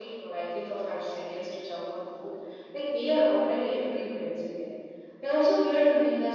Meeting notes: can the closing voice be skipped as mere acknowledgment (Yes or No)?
Yes